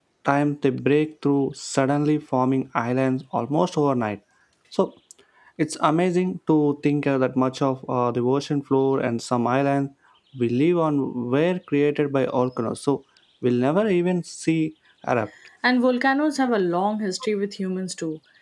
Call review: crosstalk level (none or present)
none